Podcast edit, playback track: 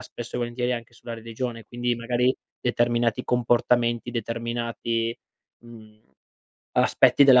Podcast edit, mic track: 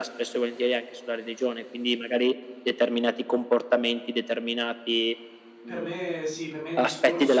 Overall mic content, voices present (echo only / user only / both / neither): both